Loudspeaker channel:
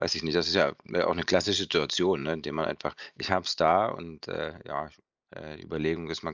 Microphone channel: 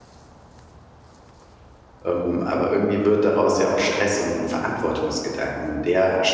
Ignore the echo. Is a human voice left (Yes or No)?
Yes